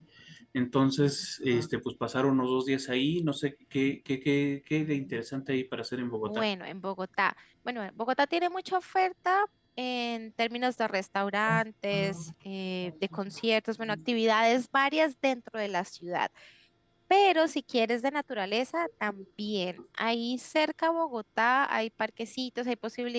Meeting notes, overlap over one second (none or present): none